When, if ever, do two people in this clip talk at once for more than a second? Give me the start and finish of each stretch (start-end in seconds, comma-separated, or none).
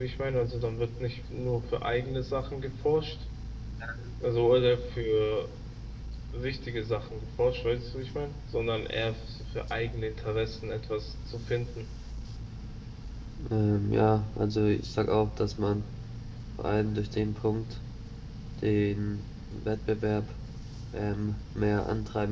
none